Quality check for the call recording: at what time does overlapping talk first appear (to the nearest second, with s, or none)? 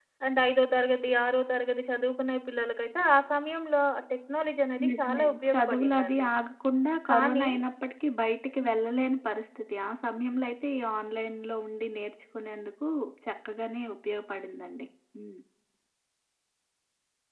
5 s